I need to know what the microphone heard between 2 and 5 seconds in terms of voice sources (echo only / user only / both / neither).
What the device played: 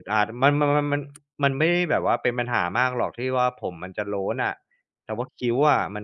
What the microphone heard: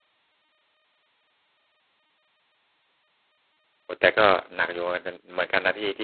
user only